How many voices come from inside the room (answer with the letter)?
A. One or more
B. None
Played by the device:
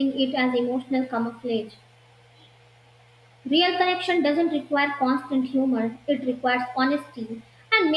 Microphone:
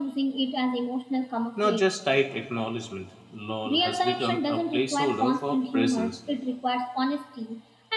A